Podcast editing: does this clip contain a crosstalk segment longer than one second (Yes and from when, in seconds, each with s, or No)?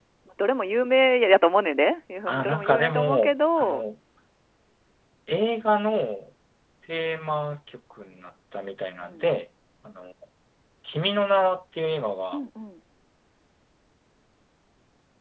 Yes, from 2.4 s